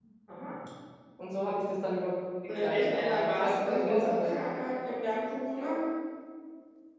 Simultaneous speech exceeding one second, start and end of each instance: 2.6-4.3

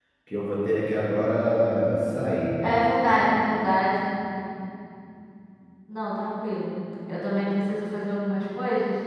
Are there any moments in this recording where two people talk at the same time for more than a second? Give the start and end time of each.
none

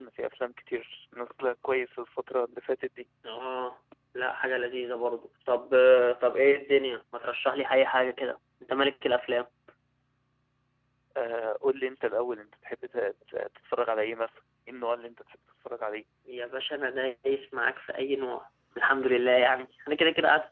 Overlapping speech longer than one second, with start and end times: none

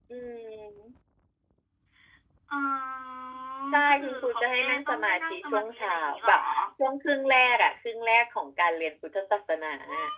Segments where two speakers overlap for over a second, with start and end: 3.8-6.3

